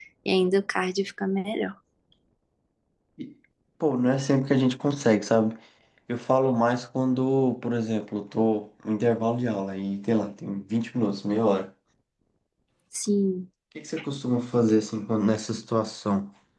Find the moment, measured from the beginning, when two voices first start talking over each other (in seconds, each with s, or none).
none